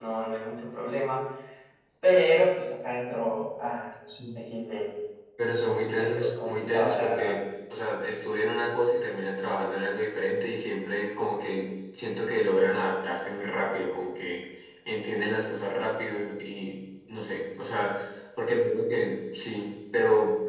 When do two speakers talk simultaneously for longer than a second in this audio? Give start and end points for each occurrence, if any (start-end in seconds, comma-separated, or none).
5.9-7.4